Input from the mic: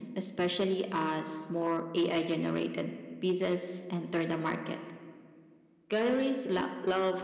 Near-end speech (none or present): none